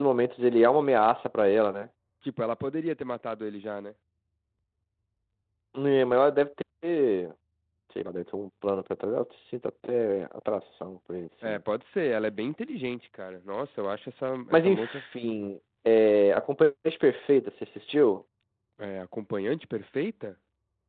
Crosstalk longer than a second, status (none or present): none